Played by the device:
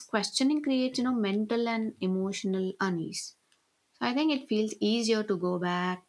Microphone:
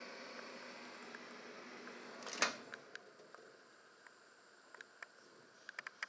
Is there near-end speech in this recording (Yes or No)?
No